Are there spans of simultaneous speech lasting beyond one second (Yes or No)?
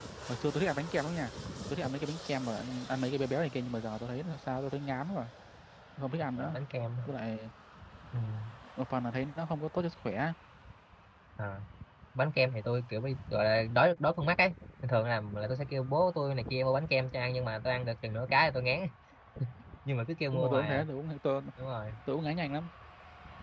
No